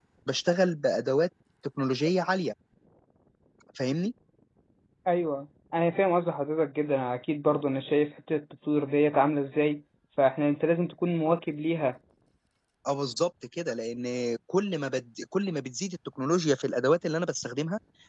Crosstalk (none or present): none